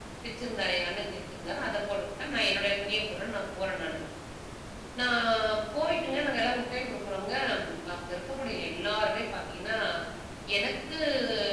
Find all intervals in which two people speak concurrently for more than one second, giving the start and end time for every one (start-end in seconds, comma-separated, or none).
none